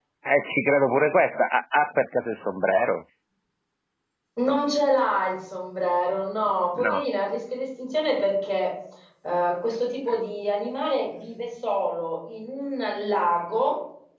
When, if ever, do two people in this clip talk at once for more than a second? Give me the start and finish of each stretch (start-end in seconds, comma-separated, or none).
none